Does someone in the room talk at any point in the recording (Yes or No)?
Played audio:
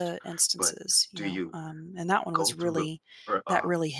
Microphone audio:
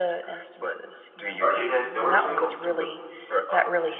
Yes